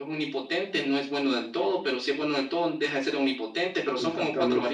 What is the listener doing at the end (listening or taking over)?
taking over